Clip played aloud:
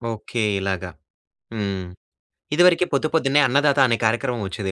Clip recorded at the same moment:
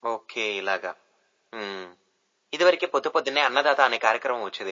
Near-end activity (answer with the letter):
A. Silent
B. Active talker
A